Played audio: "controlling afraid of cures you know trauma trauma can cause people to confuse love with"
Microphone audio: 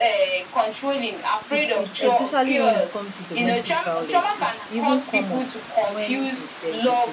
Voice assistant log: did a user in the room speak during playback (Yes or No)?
Yes